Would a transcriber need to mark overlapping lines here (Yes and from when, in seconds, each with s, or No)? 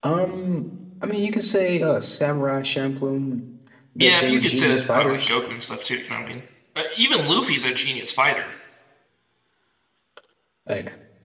Yes, from 4.0 s